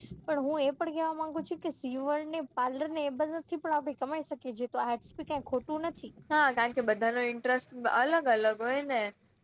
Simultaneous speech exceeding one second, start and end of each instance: none

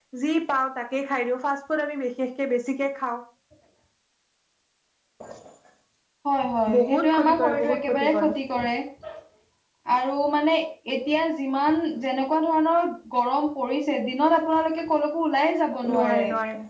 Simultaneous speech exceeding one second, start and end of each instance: 6.8-8.3

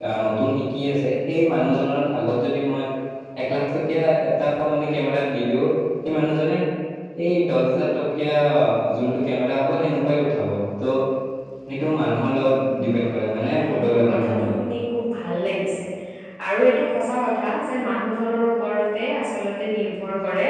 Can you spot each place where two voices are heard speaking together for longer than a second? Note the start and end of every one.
13.4-14.6

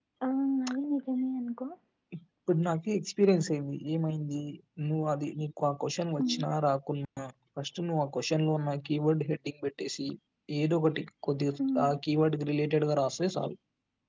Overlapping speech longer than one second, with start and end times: none

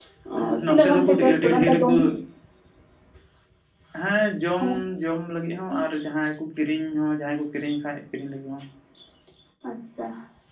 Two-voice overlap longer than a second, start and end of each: 0.7-1.9

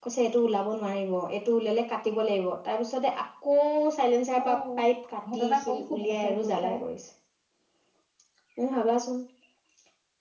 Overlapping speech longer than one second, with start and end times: 5.3-6.8

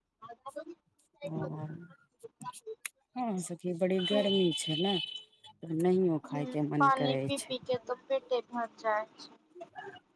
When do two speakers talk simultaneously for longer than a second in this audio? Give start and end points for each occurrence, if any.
6.3-7.5

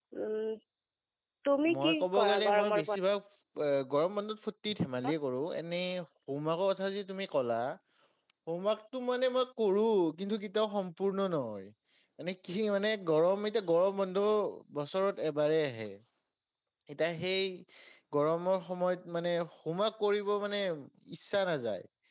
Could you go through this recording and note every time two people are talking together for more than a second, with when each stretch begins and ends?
1.7-3.0

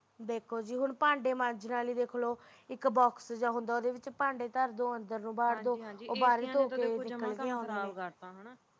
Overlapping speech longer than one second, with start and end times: 5.5-7.9

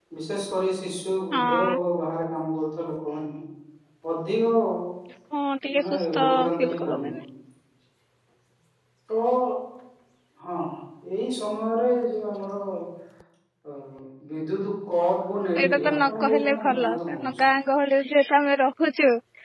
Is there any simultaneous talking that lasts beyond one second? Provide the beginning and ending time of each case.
5.8-7.2, 15.6-17.3

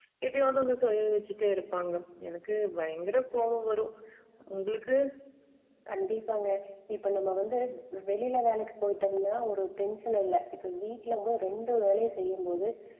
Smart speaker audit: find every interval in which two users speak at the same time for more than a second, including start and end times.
none

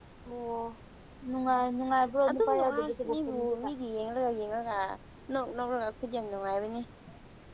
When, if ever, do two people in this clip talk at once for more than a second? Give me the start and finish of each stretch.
2.3-3.6

